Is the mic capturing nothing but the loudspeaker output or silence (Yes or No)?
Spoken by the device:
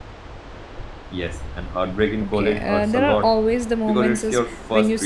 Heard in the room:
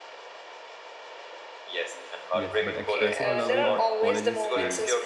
No